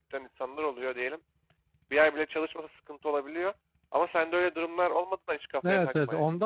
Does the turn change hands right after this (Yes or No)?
Yes